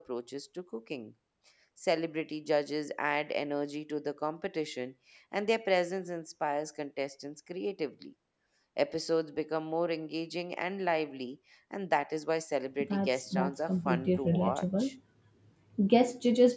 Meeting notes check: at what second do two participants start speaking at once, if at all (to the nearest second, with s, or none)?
13 s